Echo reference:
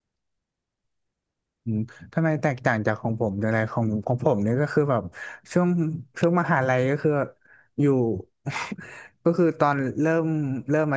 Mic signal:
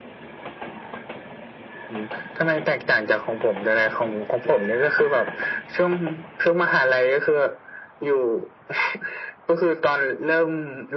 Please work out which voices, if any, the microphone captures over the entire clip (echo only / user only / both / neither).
echo only